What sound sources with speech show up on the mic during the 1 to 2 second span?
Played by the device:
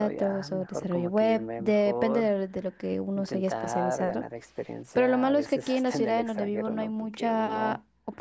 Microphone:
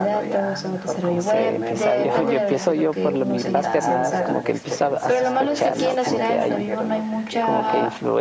both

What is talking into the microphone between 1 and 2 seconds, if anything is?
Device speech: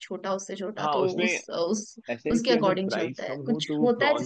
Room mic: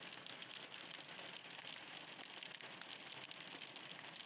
neither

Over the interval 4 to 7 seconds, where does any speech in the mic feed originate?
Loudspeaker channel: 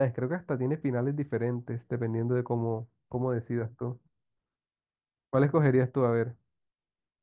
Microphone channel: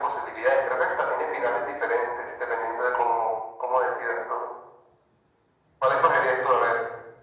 echo only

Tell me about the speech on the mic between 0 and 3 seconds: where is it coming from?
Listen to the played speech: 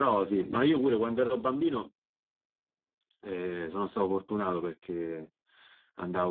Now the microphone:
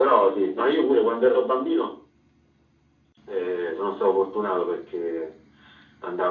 echo only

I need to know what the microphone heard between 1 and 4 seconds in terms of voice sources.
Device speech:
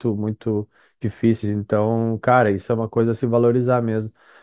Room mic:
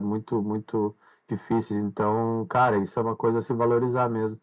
echo only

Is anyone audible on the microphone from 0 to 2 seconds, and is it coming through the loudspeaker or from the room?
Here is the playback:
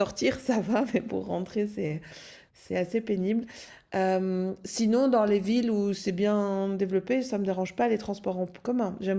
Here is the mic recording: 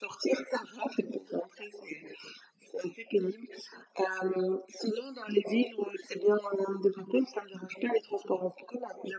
echo only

